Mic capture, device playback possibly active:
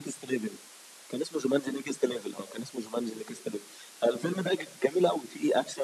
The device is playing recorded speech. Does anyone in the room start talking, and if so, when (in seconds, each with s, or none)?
none